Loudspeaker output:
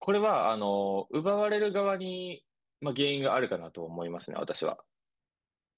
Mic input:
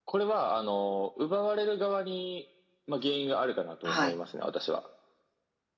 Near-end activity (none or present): present